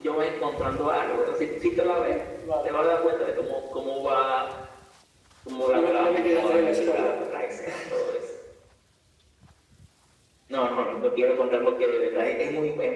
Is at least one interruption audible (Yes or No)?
Yes